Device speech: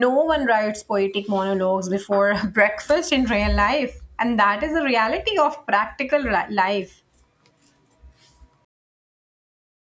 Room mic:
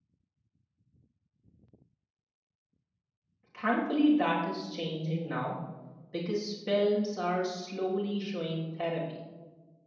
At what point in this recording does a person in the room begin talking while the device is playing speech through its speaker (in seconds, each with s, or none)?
3.5 s